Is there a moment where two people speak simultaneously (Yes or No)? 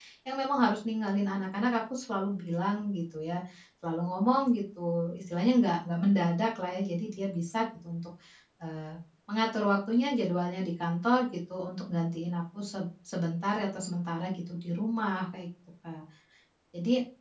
No